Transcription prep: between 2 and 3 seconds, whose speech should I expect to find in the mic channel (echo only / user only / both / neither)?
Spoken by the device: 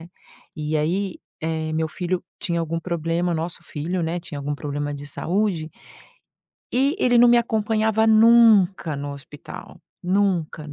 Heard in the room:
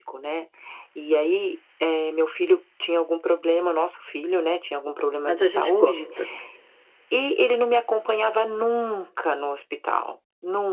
echo only